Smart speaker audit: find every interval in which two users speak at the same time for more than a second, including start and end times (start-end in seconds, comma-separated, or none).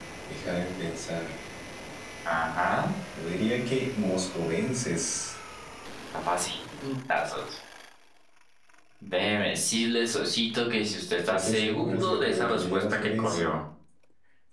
11.3-13.6